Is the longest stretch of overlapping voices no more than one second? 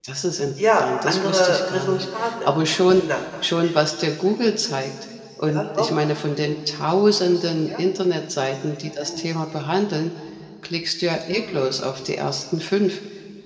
No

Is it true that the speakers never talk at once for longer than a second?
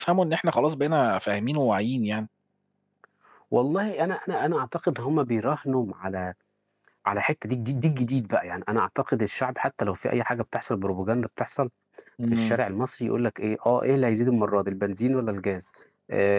Yes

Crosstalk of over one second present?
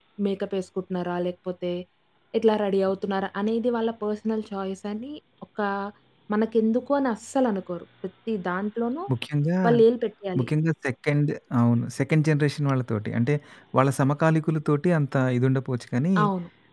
No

